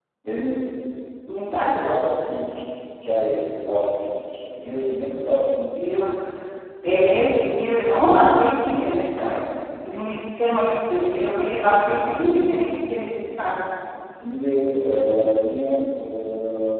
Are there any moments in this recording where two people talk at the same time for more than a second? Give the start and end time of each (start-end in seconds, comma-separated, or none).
none